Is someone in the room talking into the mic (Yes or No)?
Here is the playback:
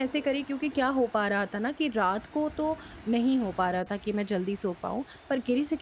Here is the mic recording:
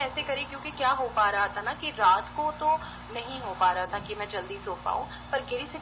No